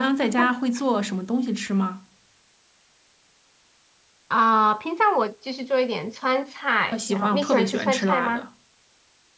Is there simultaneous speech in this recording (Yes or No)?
Yes